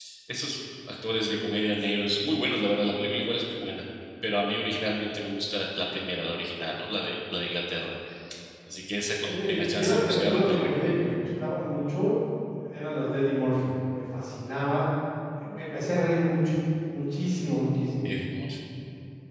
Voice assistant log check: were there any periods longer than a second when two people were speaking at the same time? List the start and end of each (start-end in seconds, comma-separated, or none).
9.3-11.1